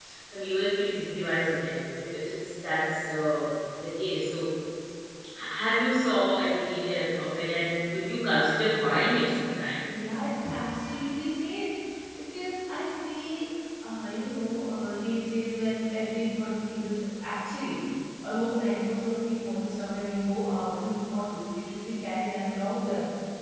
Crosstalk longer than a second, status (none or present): none